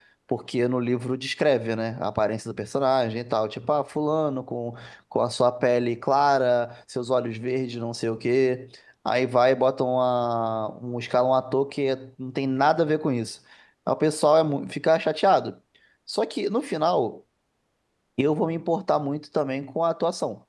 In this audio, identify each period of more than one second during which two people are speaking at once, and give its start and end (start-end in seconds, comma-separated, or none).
none